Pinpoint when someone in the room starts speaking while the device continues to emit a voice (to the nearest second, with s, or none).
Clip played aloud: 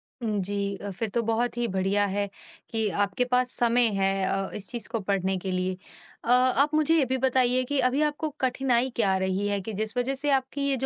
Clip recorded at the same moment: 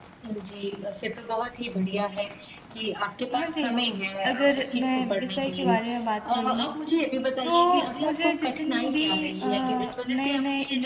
3 s